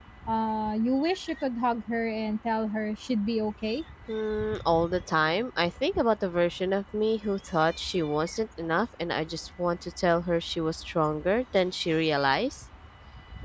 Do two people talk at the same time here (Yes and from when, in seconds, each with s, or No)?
No